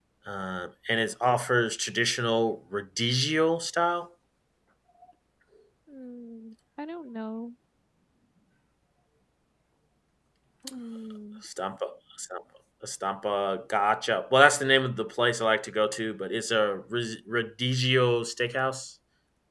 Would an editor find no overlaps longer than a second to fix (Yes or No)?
Yes